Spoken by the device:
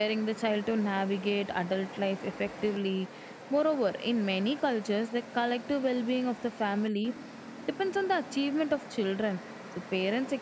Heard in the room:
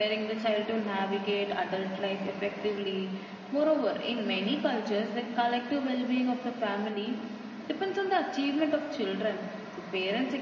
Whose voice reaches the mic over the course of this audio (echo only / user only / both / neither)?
echo only